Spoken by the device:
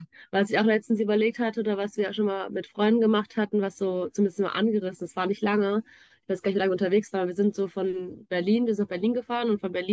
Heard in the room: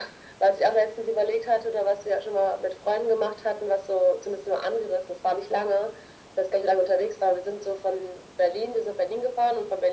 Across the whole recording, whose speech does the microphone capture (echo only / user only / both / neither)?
echo only